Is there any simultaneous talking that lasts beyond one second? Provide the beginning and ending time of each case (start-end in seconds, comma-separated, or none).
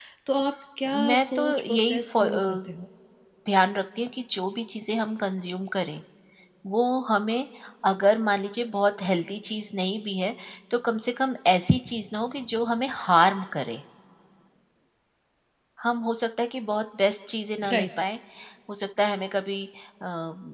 1.1-2.6